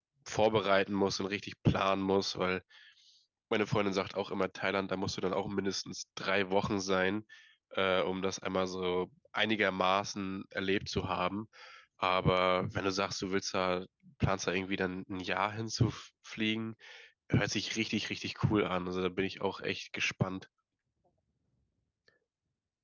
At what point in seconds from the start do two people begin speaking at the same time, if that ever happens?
none

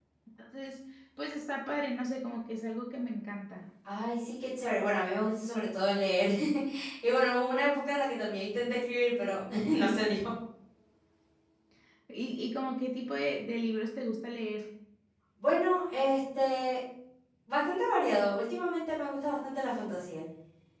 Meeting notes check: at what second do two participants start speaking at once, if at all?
none

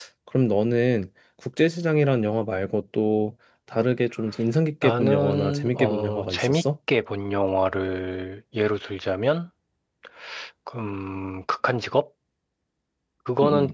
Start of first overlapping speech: 4.8 s

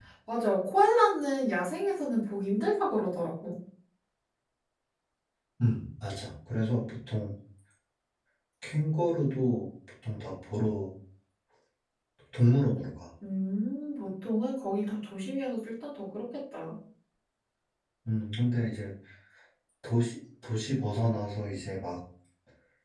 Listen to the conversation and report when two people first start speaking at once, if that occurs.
none

